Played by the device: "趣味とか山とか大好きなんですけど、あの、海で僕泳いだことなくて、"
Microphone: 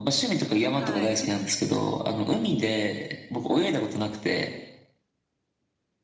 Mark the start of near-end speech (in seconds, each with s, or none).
0.7 s